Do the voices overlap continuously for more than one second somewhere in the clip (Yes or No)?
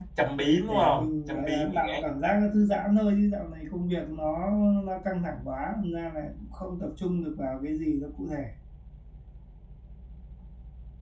Yes